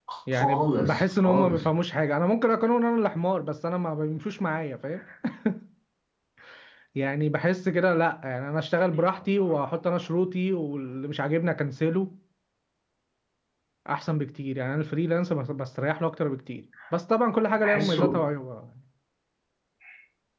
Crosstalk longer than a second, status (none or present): present